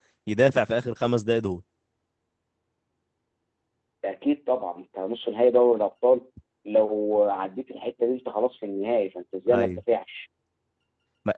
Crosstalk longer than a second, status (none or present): none